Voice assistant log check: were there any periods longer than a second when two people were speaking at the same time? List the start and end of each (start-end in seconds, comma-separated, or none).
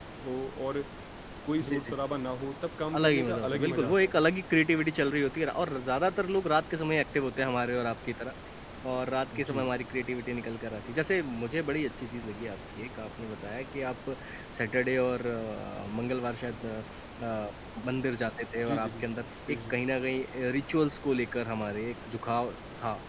3.0-4.2